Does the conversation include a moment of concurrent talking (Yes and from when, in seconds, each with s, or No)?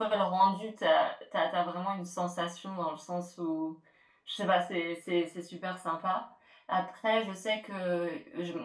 No